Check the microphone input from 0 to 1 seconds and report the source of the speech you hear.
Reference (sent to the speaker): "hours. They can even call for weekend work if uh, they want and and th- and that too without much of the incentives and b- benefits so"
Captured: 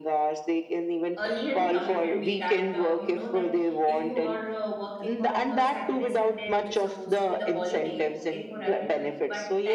echo only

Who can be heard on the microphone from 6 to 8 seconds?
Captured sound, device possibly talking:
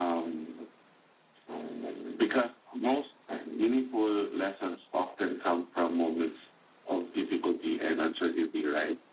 echo only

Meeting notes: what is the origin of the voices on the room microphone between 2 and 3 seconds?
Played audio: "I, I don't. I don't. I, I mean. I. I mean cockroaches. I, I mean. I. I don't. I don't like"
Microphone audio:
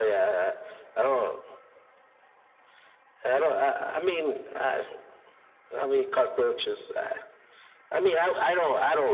neither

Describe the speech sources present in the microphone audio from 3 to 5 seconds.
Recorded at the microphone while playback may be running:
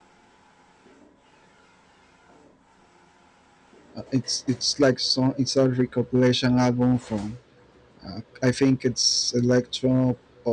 user only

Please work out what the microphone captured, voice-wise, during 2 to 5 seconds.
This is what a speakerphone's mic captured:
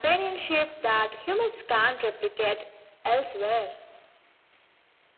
echo only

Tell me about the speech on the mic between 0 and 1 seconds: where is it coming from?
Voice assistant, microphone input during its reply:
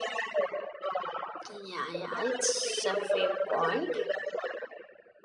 echo only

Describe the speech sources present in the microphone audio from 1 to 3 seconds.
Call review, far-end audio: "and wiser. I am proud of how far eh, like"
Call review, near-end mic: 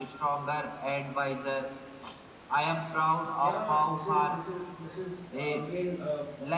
echo only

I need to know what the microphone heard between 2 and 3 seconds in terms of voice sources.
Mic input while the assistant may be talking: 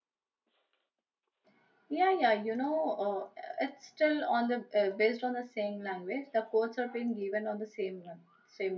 user only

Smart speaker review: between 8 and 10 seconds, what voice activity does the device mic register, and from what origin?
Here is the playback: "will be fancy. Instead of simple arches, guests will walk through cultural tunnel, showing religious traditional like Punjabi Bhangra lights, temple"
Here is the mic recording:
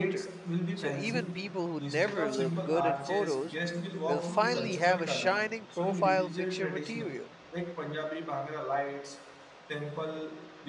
echo only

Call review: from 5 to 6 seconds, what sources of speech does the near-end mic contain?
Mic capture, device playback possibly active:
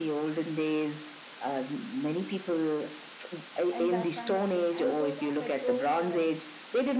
both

